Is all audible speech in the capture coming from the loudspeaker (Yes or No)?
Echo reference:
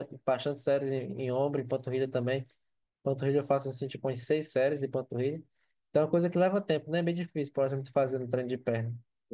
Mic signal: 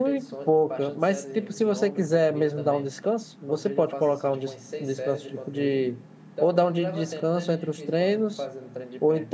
No